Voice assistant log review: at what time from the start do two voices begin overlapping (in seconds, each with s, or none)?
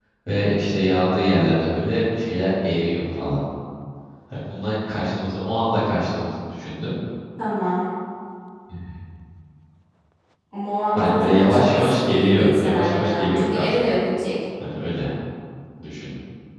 10.9 s